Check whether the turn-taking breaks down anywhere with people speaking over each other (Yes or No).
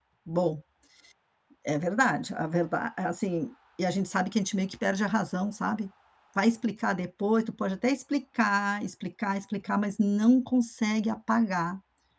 No